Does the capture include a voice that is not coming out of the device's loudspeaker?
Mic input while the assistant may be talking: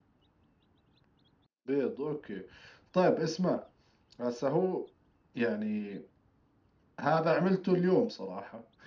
No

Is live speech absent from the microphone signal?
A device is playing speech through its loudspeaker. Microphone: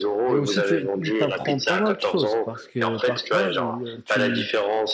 No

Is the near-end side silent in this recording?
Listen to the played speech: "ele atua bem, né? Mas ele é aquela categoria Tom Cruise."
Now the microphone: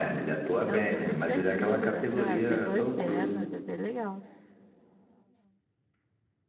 No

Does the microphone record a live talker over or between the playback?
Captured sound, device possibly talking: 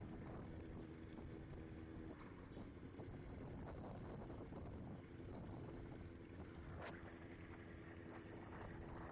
No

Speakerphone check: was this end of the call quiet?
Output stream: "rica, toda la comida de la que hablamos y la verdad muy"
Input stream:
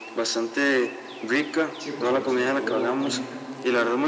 No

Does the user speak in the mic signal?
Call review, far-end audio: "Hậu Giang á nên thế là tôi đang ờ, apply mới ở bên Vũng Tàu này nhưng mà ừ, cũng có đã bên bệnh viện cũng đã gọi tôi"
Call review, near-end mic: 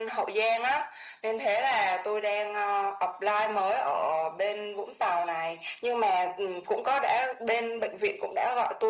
No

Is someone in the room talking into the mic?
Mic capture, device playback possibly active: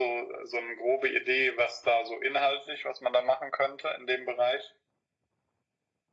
No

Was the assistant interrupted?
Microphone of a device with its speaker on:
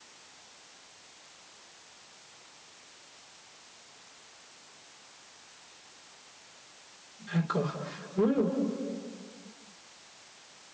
Yes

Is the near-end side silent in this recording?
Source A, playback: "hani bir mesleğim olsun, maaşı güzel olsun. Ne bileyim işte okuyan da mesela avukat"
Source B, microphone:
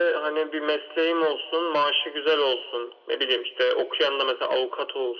Yes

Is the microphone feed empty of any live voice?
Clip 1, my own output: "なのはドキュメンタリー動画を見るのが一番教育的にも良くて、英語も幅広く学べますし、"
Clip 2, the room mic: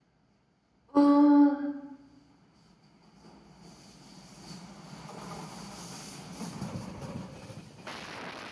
No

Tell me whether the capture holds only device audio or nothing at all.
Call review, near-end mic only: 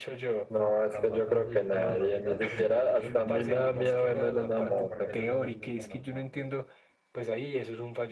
No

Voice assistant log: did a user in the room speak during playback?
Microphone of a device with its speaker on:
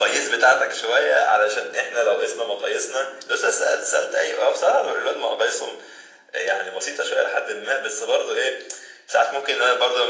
No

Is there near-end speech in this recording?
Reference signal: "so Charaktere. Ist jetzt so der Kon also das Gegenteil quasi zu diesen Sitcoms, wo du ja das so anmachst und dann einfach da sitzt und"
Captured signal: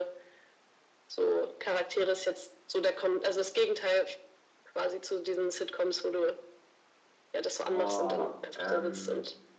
Yes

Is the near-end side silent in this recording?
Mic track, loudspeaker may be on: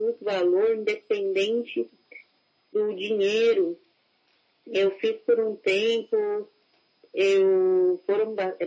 Yes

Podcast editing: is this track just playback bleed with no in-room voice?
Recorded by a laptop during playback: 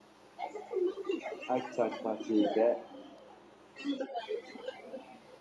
No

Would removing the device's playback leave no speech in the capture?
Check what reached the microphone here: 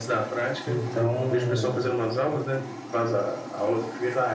No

